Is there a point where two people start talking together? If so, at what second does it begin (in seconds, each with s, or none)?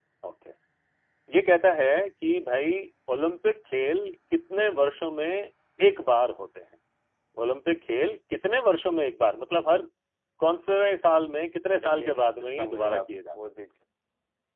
11.8 s